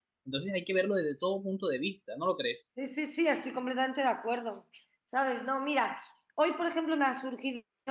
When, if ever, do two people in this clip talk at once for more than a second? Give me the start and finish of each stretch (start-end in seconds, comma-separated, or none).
none